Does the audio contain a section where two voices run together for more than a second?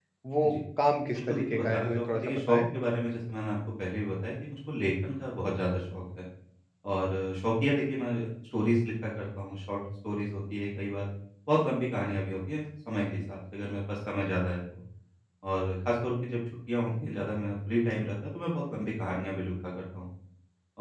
Yes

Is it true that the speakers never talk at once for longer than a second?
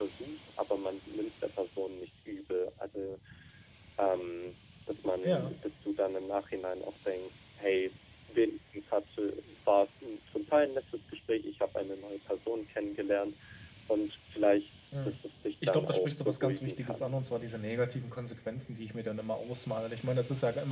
No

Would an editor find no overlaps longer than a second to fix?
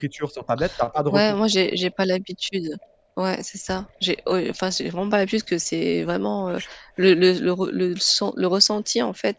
Yes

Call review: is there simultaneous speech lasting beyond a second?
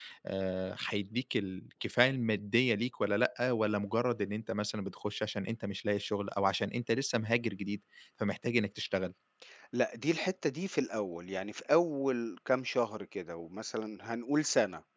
No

